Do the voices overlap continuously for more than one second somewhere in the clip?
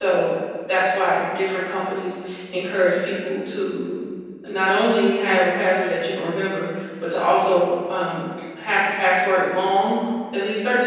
No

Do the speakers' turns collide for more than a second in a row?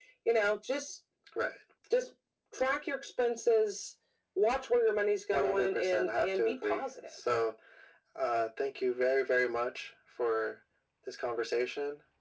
Yes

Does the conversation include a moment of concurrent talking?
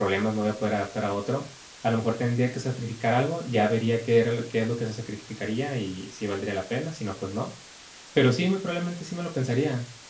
No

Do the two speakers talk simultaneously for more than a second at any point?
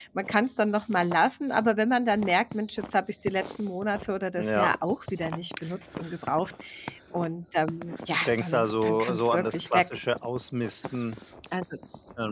Yes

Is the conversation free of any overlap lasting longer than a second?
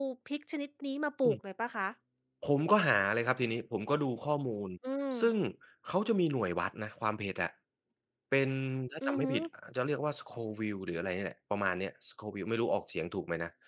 Yes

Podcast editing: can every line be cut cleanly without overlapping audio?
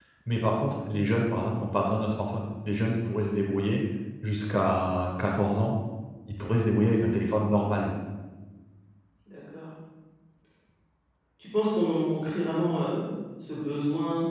Yes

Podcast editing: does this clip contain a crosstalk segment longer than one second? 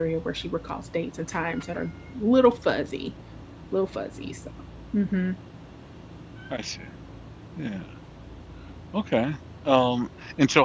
No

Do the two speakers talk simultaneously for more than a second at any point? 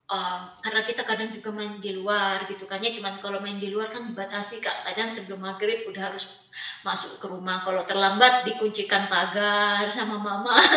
No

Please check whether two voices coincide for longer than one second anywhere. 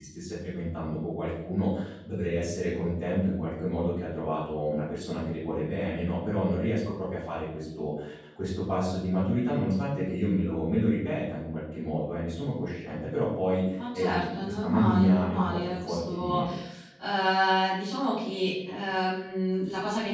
Yes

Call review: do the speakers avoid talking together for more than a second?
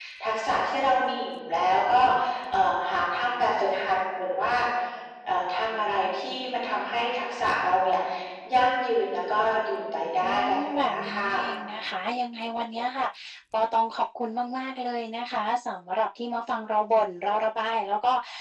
No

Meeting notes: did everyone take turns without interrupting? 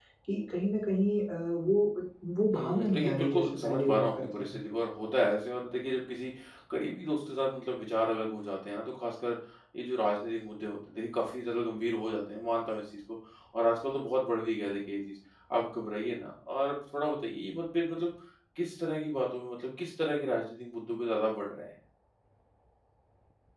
No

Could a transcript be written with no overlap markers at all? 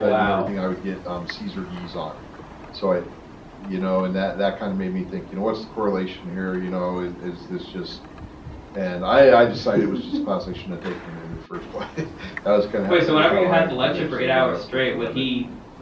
No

